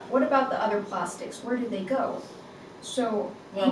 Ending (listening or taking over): taking over